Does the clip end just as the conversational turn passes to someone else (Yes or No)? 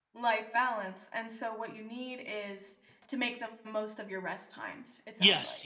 Yes